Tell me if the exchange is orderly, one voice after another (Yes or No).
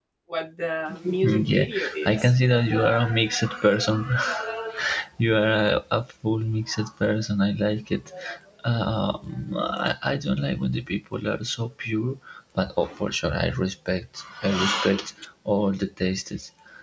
No